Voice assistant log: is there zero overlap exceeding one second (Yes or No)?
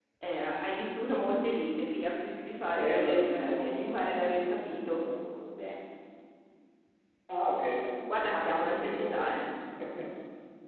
No